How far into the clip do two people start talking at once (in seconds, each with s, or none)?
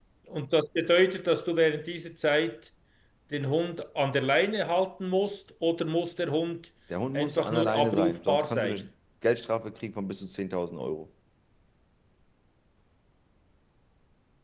7.1 s